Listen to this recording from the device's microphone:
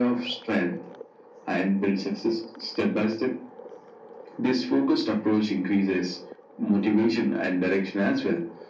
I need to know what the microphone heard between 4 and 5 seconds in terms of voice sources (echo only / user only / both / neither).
echo only